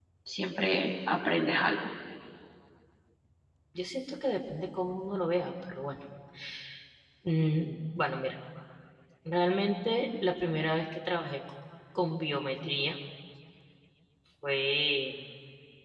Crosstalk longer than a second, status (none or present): none